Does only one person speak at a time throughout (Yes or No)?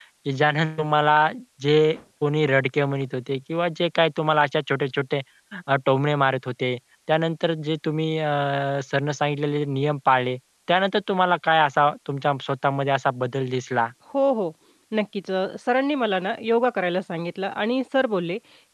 Yes